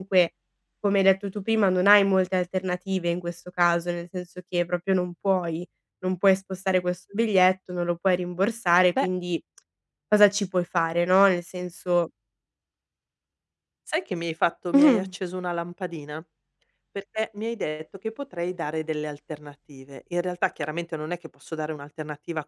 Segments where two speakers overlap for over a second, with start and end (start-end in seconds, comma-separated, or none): none